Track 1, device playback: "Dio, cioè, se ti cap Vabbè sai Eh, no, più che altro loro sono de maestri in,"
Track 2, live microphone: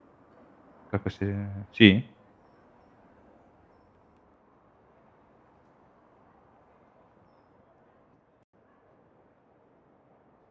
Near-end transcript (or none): tra queste Sì?!